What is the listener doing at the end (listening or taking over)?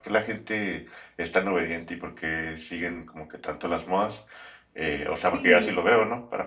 listening